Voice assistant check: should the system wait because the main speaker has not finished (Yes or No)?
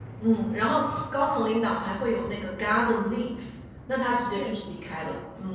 Yes